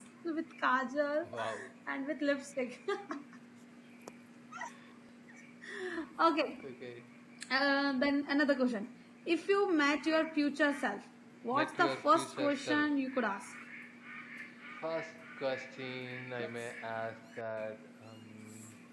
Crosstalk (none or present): present